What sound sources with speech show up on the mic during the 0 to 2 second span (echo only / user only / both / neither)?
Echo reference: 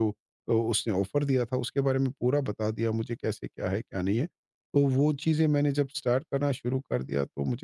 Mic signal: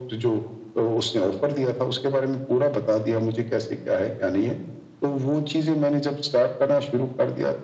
echo only